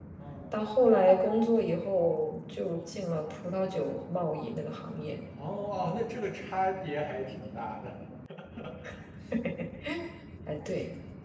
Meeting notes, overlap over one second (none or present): none